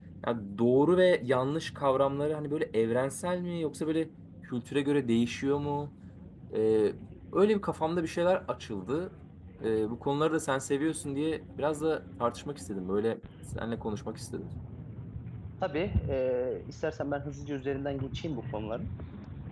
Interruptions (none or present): none